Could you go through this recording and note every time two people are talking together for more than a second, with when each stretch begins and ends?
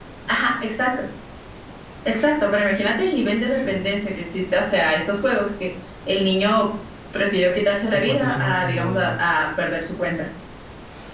7.9-9.2

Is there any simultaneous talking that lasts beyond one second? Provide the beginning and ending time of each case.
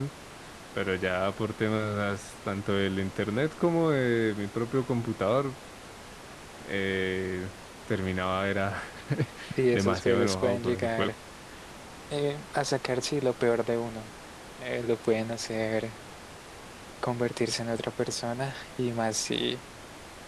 9.7-11.1

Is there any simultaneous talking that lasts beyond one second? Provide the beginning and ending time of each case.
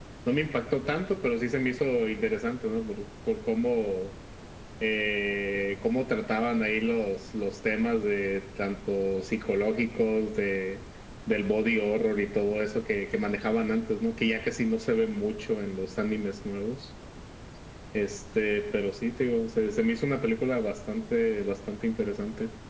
none

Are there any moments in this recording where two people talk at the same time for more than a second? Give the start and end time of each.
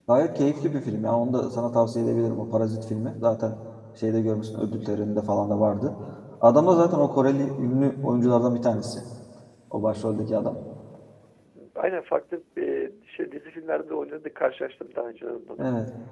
none

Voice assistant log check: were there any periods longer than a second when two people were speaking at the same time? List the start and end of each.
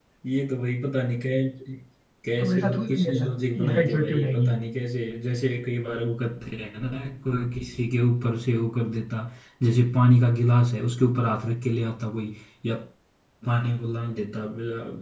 2.4-4.5

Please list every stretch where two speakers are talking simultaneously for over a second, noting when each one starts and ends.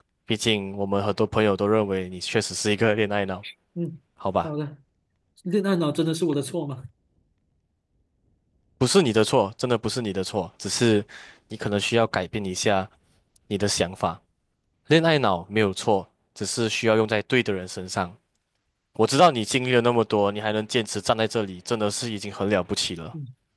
none

